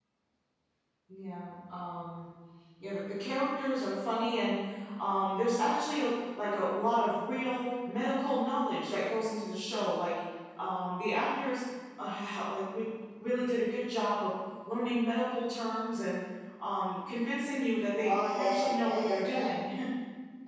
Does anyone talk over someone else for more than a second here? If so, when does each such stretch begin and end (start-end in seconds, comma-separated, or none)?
18.0-19.5